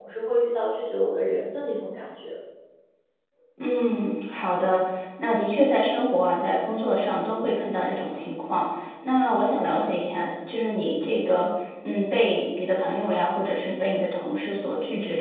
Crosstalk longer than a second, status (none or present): none